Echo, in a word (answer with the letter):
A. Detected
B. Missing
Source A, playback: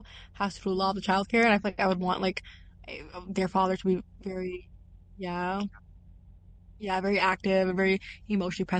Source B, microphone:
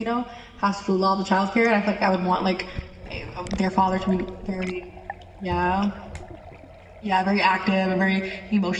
A